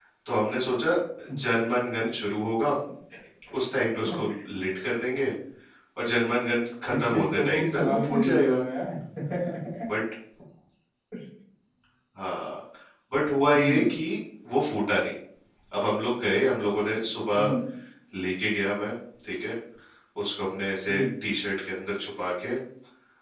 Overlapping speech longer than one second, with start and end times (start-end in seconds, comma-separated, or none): 6.9-8.6